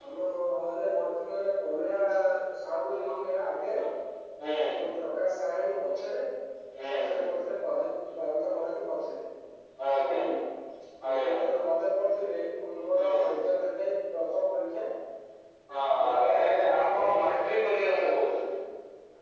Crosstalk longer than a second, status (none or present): present